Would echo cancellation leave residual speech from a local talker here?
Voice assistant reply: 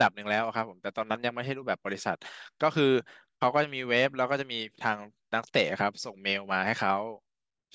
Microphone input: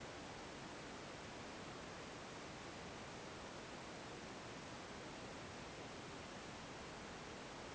No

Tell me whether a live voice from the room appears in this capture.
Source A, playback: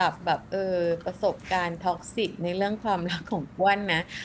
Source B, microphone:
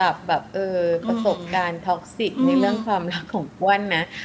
Yes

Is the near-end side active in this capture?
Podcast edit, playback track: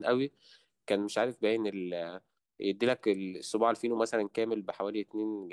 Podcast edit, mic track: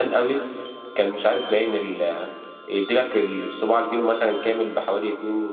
No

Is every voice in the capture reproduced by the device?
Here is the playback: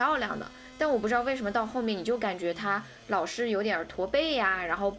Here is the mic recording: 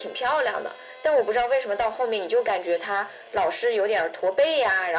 Yes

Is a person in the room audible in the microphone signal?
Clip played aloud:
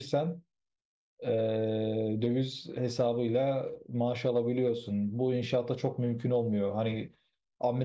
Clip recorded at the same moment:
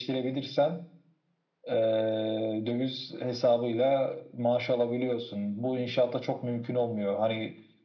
No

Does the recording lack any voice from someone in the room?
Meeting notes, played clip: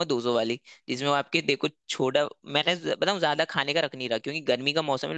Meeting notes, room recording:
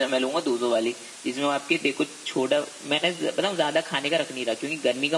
Yes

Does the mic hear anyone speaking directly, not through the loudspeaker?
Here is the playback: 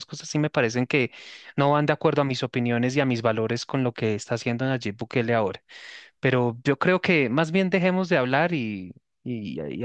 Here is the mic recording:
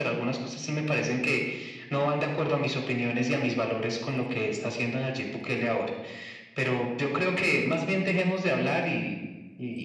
No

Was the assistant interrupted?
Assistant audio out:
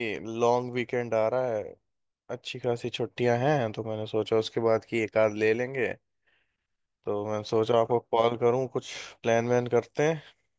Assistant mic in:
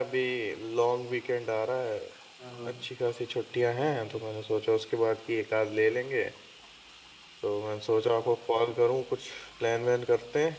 Yes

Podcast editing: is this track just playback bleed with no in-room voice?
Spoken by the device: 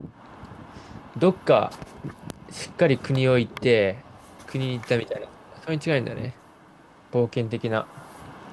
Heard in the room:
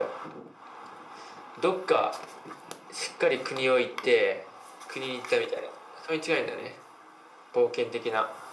Yes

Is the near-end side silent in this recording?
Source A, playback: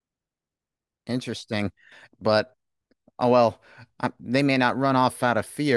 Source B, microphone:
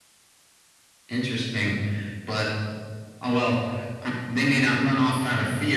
Yes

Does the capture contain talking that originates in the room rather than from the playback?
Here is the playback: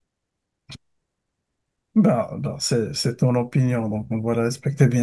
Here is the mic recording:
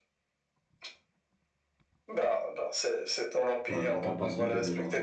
Yes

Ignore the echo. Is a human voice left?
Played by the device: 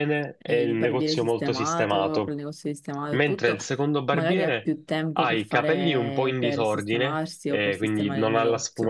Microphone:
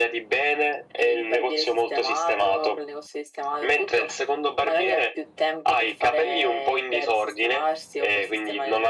No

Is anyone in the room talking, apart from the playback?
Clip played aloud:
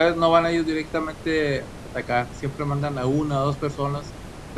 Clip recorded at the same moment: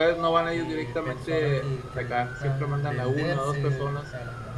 Yes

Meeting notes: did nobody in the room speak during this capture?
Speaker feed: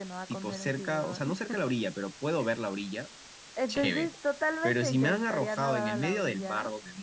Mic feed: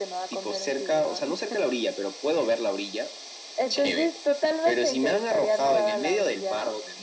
Yes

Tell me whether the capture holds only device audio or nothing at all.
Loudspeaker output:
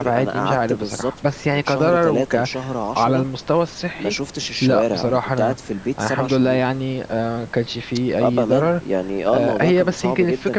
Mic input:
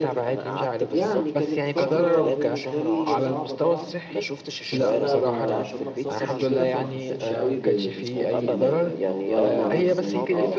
No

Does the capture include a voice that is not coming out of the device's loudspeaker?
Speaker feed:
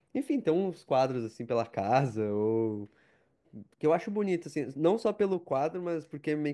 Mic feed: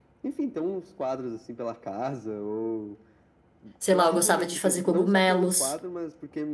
Yes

